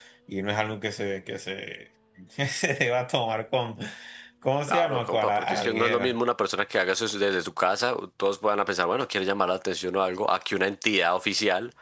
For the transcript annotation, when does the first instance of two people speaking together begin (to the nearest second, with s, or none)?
5 s